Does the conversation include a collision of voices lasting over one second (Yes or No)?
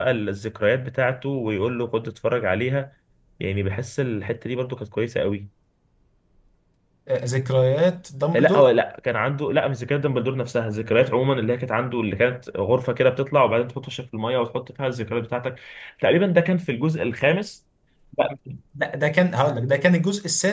No